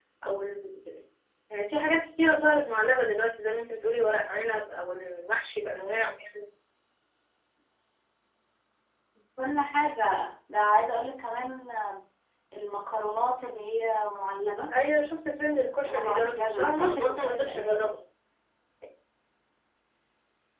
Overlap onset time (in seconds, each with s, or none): 15.8 s